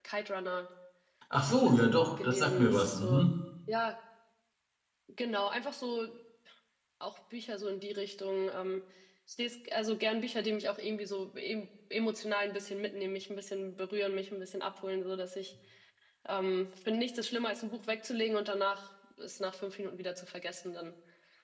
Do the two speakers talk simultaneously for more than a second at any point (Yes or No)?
Yes